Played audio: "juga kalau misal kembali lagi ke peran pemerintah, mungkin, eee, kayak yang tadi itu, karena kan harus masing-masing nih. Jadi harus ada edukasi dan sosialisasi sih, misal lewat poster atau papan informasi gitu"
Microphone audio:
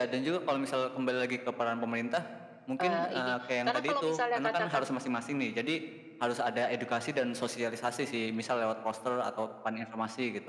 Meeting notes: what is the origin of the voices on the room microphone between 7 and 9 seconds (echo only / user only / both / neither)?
echo only